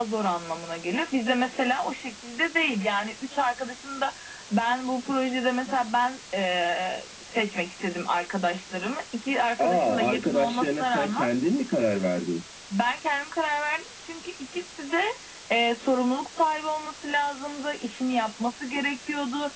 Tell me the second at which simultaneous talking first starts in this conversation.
9.6 s

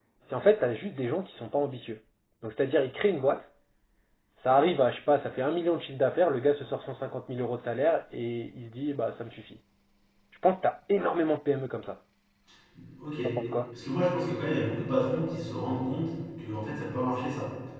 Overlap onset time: none

